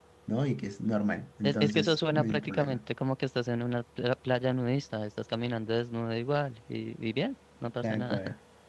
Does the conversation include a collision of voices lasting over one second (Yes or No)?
Yes